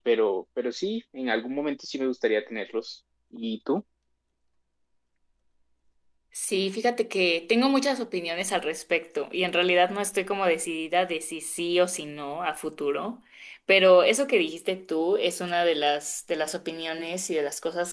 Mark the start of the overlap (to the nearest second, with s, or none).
none